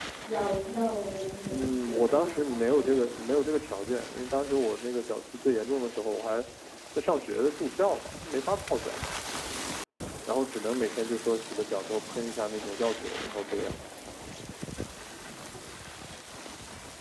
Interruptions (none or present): present